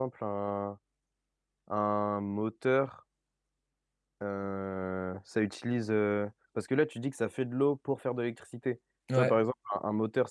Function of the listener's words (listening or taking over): listening